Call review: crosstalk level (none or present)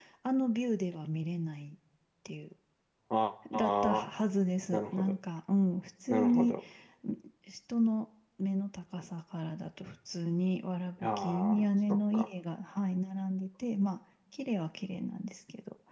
present